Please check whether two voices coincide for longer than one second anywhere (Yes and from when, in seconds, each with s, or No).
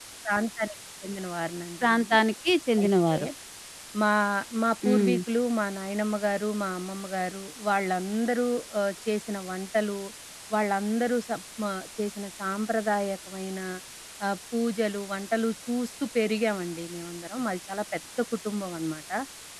No